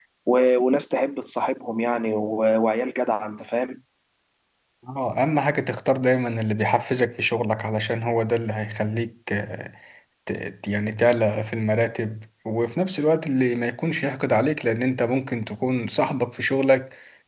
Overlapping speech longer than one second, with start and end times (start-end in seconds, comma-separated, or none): none